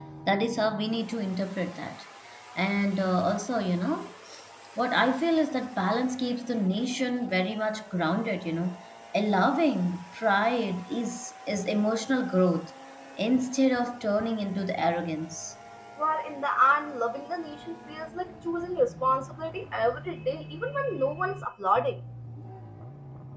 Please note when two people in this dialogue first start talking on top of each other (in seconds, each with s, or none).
none